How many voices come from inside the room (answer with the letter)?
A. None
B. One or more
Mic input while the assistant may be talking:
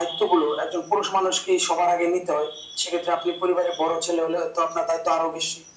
A